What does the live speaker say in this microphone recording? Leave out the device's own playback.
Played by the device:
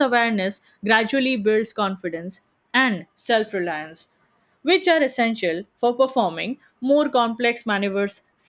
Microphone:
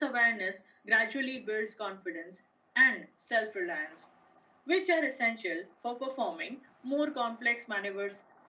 none

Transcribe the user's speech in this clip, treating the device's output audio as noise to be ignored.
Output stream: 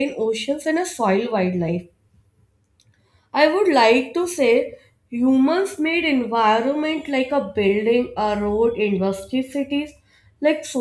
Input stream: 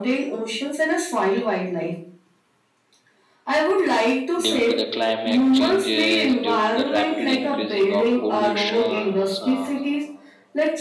due to the climate changes due to the rapid increasing of pollutions uh,

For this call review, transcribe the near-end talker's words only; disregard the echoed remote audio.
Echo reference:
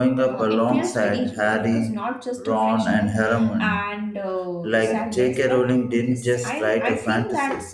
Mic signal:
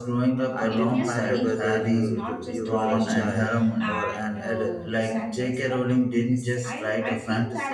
I didn't matter whether you you were a child or an adult.

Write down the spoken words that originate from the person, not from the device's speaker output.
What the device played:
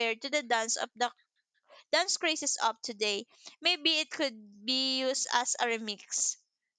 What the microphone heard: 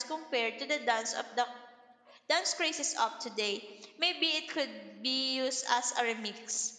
none

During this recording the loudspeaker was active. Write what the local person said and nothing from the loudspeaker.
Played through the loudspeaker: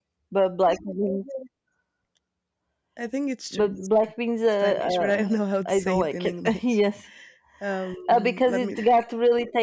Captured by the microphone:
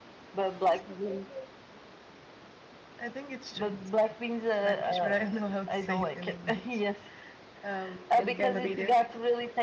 and can read it.

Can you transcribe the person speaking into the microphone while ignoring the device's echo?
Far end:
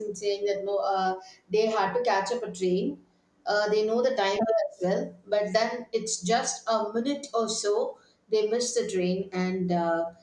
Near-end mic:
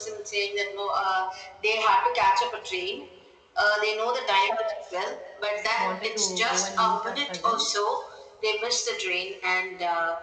wanted to go and meet our cousin.

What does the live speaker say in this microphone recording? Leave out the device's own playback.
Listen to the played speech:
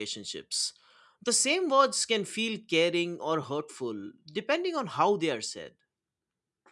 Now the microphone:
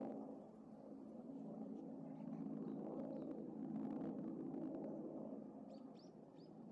none

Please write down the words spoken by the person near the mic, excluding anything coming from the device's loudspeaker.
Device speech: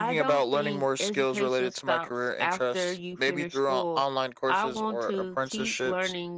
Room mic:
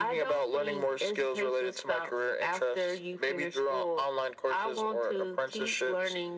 none

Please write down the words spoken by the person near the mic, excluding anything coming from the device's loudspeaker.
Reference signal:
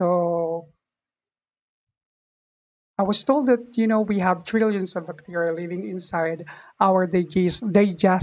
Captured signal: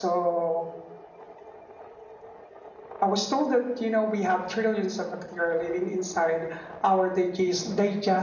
none

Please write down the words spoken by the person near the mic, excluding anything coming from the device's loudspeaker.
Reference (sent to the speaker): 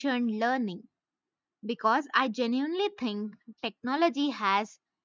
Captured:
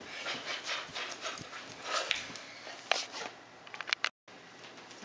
none

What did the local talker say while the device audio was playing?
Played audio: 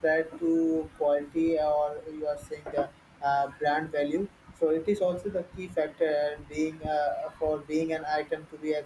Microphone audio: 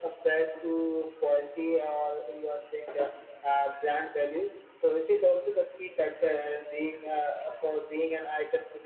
none

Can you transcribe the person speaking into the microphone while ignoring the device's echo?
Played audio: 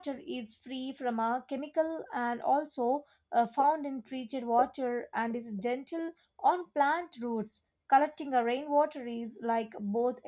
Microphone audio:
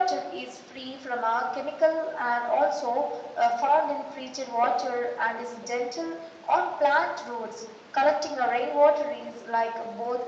none

